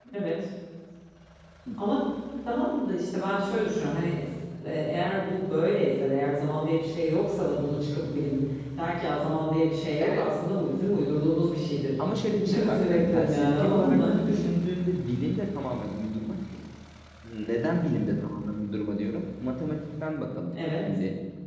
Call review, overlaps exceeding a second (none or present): present